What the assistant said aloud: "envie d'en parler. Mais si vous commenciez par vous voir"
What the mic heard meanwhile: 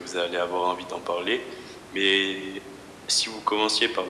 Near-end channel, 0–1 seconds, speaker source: echo only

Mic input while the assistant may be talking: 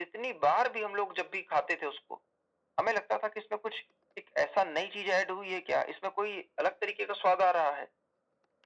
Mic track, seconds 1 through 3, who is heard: echo only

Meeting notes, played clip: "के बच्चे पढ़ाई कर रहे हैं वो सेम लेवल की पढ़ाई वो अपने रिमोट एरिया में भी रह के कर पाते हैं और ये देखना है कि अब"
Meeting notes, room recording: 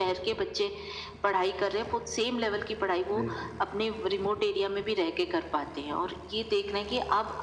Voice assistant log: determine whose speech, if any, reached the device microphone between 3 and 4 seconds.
both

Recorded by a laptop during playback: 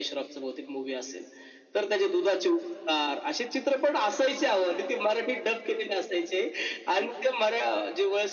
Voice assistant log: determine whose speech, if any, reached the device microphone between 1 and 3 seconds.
echo only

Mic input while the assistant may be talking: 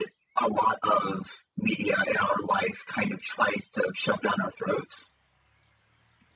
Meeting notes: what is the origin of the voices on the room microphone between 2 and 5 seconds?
echo only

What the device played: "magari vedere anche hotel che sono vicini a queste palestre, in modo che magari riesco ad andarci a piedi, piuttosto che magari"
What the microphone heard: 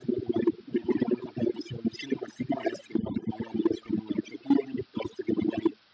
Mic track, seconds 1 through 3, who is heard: echo only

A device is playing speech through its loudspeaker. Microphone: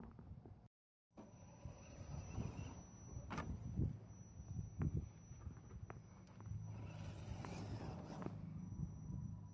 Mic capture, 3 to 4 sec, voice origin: neither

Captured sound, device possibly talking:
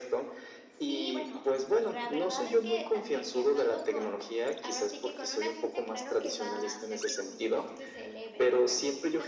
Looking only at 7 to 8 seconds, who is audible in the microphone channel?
both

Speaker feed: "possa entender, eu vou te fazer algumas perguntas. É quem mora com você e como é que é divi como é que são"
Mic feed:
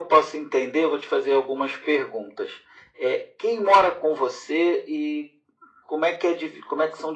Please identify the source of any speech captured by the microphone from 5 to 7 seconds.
echo only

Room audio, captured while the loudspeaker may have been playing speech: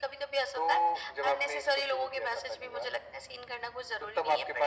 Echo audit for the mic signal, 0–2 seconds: echo only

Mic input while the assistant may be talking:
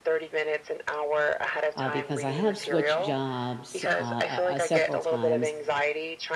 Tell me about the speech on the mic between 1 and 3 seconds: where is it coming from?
both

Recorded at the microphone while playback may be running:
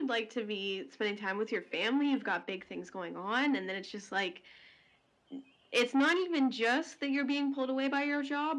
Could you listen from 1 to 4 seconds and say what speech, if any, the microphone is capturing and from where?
echo only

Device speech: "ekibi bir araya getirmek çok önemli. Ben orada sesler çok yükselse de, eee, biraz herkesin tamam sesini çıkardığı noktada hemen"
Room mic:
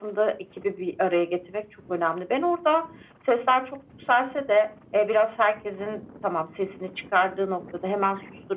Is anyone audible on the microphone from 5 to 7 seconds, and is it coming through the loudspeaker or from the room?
echo only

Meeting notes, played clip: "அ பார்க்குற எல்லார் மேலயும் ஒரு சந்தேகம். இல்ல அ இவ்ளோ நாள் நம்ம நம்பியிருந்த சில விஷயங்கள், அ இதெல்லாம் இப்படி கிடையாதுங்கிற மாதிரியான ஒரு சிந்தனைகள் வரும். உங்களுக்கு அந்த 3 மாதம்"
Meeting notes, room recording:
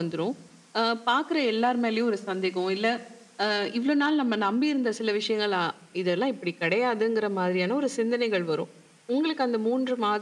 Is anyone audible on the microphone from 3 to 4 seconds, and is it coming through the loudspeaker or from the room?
echo only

